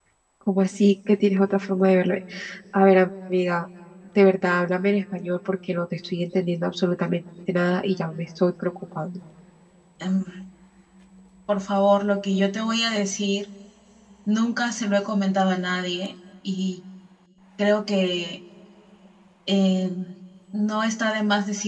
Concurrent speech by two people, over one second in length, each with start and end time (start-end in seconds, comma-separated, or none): none